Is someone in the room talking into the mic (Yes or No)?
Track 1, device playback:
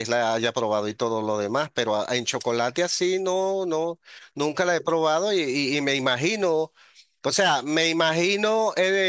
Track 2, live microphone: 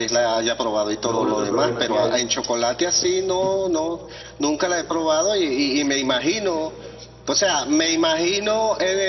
Yes